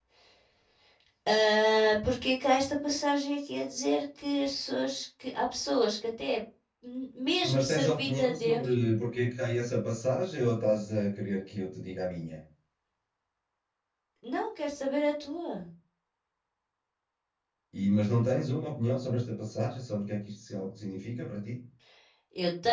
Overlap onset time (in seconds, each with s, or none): 7.4 s